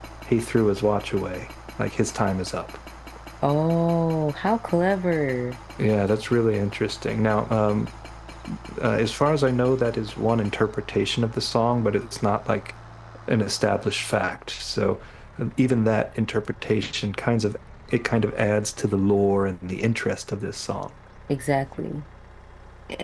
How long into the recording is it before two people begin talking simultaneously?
none

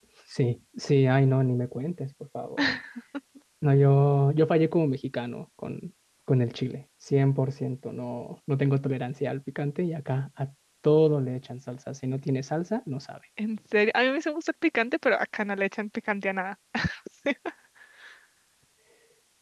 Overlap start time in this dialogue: none

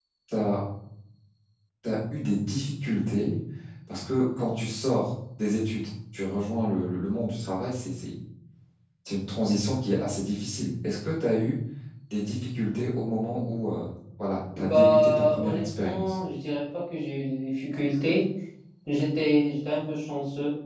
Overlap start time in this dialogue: 14.5 s

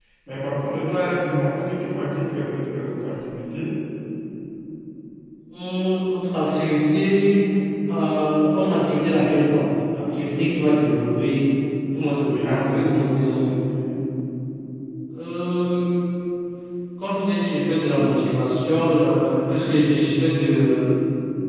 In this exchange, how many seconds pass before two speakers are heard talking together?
12.2 s

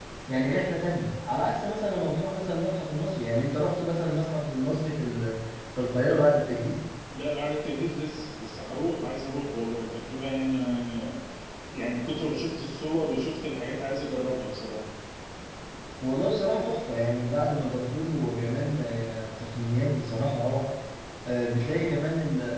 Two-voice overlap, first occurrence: none

